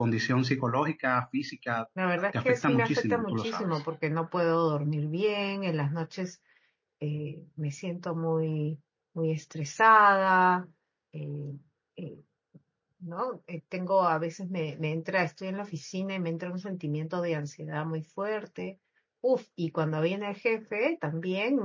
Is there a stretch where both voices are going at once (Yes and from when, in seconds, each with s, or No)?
Yes, from 2.4 s